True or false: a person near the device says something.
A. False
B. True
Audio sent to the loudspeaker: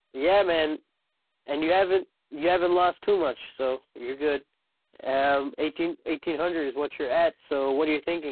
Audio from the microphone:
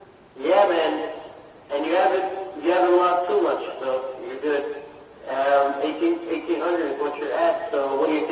A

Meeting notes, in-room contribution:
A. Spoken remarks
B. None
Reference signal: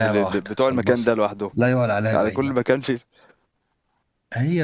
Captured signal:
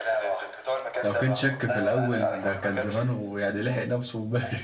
A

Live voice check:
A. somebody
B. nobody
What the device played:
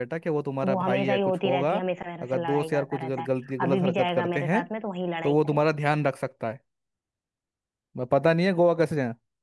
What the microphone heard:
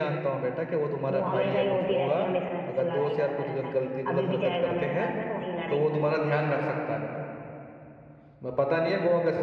B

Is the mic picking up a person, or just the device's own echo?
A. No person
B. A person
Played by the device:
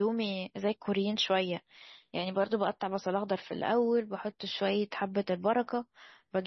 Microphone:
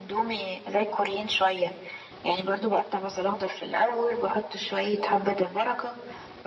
A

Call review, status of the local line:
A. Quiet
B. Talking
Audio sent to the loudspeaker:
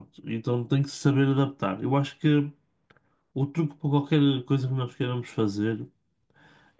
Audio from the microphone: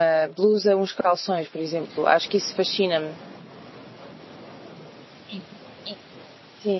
B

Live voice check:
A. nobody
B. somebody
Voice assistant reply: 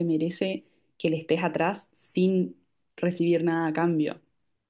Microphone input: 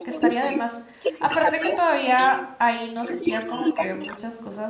B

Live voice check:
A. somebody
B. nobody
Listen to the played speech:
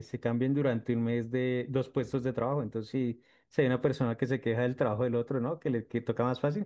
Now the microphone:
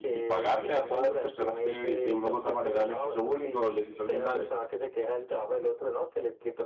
A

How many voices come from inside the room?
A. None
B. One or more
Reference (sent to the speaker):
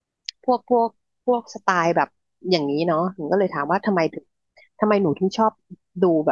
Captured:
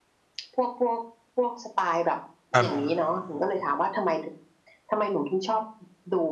B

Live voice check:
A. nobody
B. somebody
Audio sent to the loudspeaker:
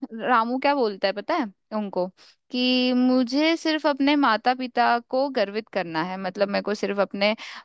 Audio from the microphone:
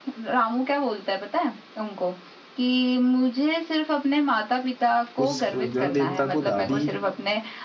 B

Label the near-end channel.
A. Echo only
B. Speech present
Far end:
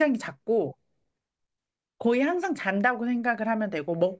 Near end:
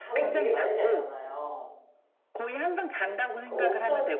B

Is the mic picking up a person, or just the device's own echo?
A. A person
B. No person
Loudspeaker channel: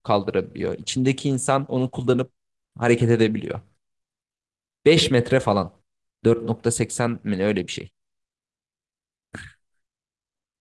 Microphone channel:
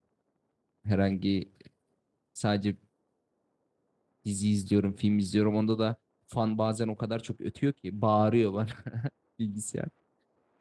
A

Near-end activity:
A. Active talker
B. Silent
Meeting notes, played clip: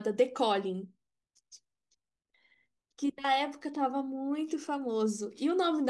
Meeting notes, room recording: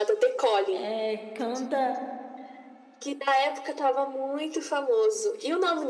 A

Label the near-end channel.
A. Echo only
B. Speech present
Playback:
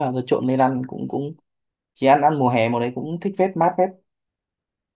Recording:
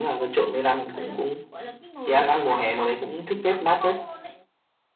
B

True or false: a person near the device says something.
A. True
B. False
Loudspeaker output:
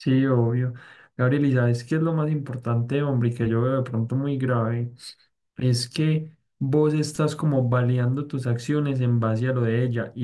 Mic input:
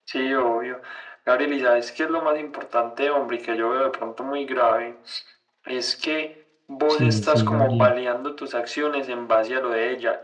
A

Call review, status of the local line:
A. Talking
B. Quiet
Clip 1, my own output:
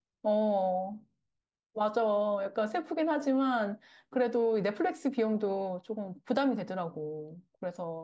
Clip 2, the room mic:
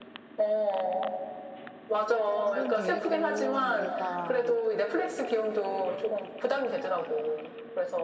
A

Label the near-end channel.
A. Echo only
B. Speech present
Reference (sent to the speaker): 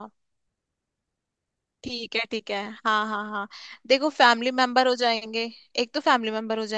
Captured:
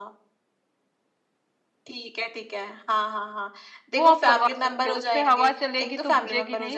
B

